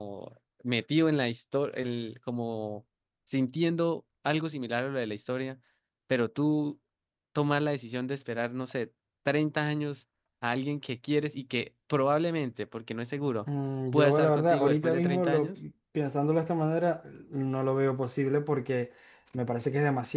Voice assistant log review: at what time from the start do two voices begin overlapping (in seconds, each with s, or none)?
13.9 s